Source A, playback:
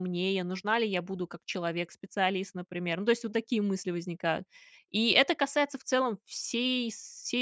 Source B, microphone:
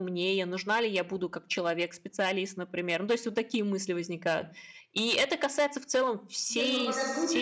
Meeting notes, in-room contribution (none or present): present